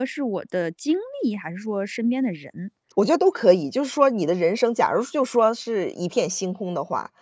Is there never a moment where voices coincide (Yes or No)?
Yes